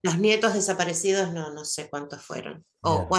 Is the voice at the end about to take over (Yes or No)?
No